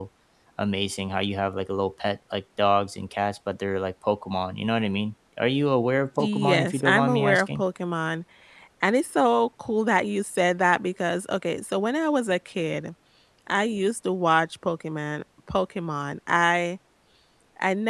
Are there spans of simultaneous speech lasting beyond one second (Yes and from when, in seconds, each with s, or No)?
Yes, from 6.2 s